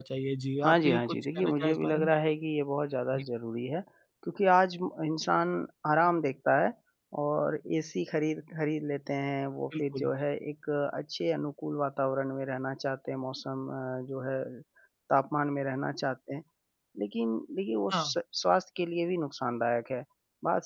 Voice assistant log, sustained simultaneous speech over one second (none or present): present